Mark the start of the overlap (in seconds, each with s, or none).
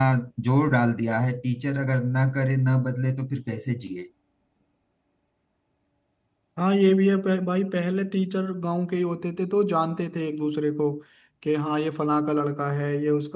none